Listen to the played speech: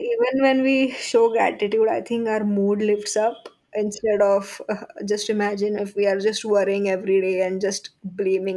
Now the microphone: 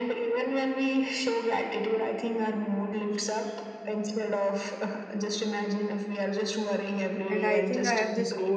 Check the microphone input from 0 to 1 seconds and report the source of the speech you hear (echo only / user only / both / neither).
echo only